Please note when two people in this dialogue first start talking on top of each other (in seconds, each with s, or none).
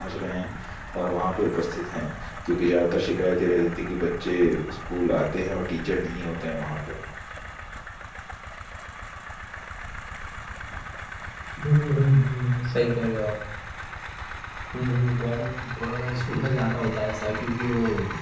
none